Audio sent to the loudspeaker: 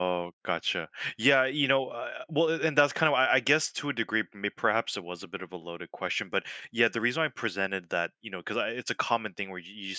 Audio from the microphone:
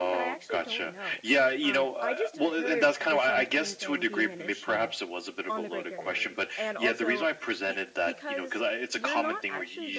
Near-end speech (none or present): present